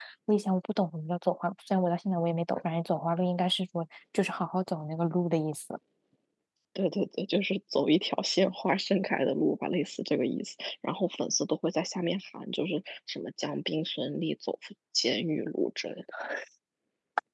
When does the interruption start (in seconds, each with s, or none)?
none